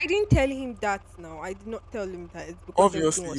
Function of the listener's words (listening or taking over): taking over